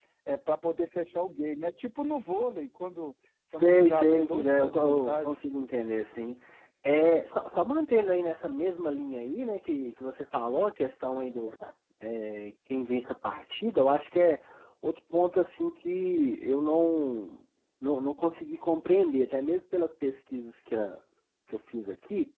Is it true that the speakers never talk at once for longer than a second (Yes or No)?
No